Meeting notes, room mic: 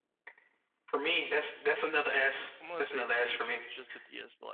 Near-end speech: present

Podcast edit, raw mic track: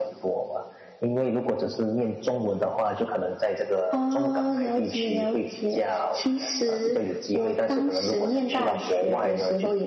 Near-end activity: none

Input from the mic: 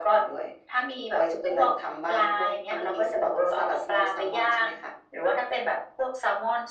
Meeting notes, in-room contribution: none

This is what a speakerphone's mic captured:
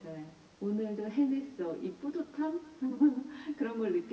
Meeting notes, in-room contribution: none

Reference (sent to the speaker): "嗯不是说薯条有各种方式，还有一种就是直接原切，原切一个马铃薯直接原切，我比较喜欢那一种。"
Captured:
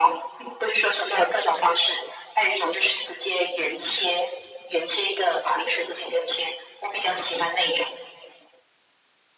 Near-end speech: none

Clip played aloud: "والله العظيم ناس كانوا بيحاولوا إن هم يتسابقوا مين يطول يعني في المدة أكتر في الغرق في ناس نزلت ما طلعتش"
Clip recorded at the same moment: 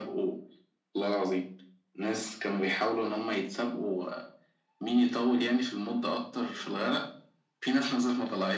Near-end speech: none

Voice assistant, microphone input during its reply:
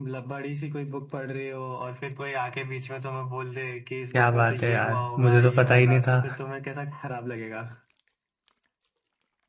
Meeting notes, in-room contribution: present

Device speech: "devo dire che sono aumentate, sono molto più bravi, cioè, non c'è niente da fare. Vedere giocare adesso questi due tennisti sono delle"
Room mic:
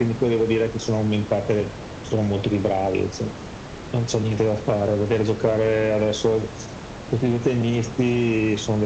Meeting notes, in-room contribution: none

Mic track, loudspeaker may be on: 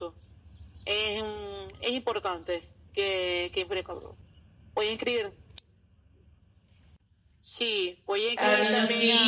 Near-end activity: present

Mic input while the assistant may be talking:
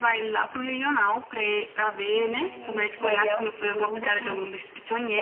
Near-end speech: present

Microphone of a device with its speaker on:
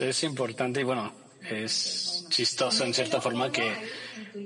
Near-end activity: present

